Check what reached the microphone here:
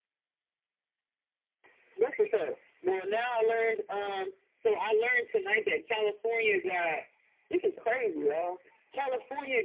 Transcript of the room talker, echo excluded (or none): none